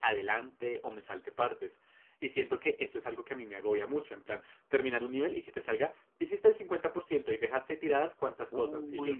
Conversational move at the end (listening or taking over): taking over